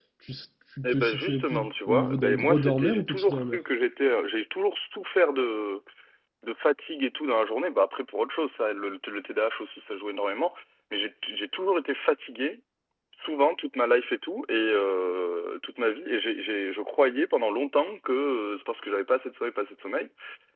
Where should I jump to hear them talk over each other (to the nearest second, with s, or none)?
1 s